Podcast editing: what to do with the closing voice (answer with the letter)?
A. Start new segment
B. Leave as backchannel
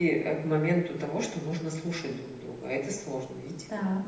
A